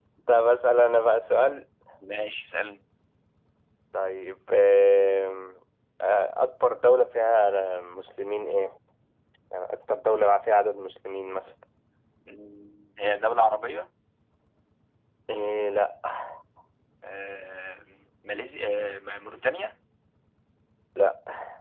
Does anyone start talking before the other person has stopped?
No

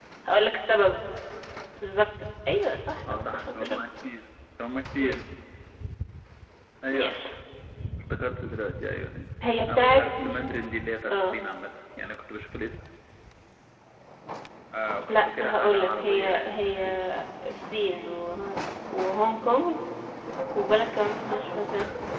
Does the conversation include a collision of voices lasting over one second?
Yes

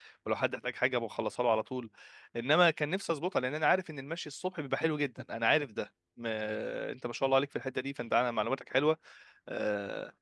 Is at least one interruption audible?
No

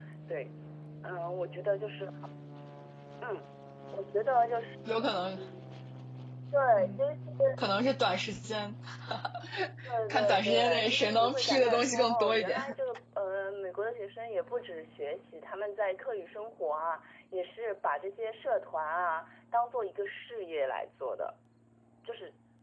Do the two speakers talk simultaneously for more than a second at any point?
Yes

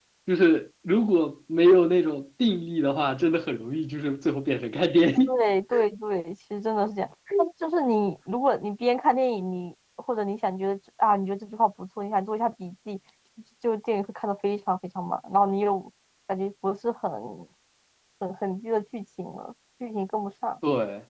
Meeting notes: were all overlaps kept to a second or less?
Yes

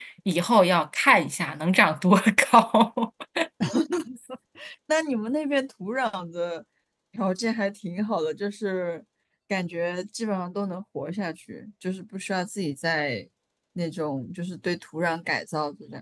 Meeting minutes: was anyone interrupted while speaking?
No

